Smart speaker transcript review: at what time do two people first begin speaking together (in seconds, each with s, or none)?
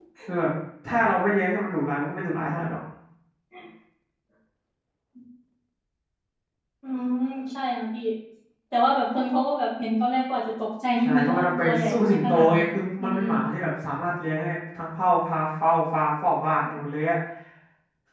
11.0 s